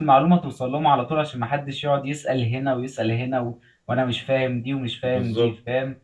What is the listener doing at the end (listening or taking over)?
listening